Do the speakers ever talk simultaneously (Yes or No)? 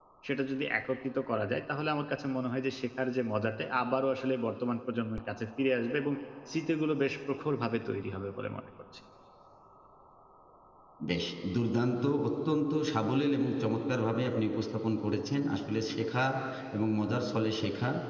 No